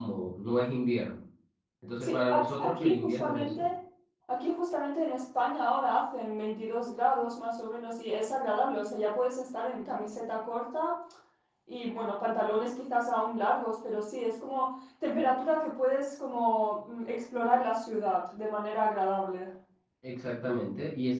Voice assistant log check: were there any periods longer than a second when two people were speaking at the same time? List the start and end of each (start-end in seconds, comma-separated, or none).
2.0-3.7